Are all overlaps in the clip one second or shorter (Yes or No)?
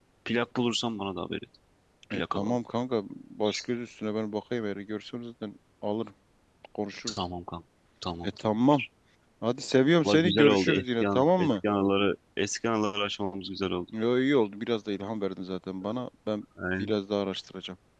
No